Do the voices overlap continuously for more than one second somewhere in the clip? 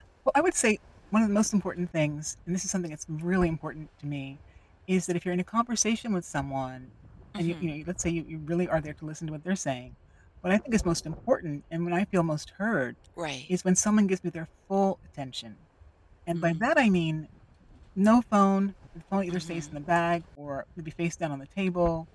No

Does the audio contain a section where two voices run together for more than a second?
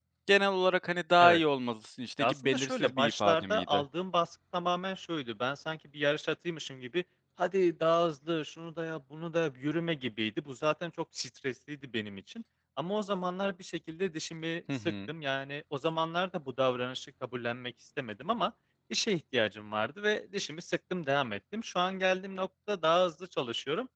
Yes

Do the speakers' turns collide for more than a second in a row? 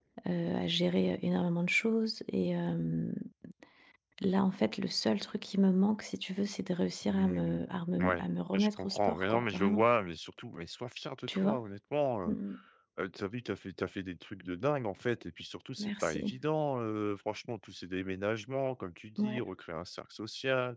Yes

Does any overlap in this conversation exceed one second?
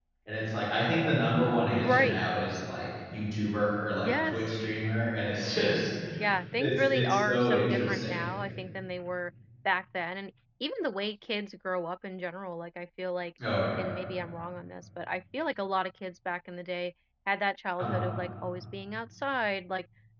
Yes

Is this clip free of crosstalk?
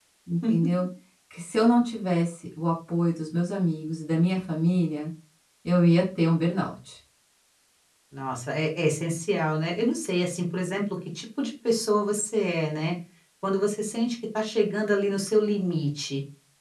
Yes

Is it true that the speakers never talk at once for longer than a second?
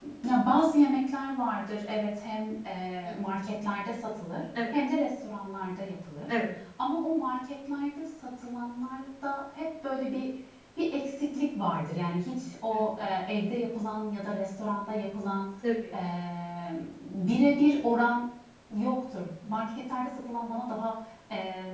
Yes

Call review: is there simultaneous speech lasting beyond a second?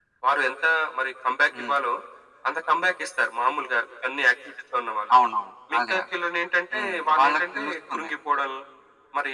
Yes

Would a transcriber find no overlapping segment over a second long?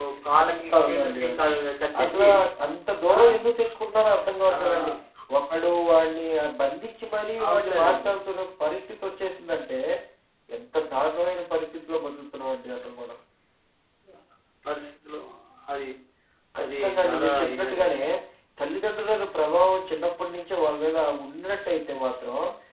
No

